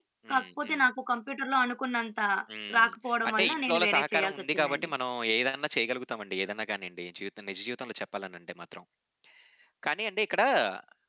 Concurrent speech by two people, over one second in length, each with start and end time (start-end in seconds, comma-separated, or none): 3.3-4.9